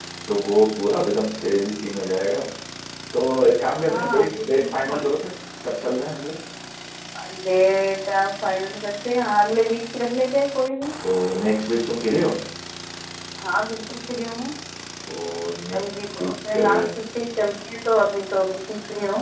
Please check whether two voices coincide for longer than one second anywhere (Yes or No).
Yes